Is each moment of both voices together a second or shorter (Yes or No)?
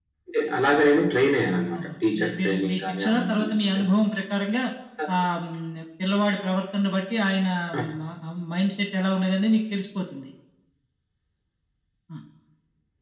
No